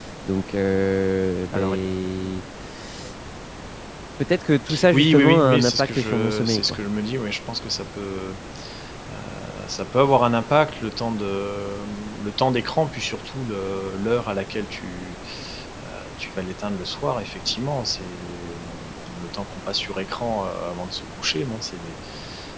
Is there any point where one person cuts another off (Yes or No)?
Yes